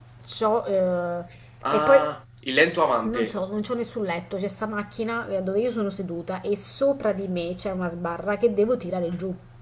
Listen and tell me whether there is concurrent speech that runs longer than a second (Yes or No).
No